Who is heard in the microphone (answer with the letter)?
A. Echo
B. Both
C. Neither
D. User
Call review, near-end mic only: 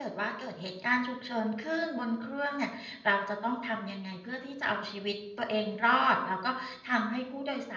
A